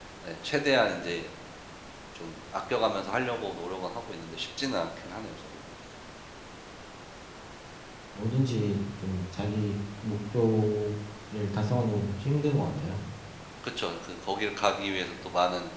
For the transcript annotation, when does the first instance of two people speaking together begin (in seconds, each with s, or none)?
none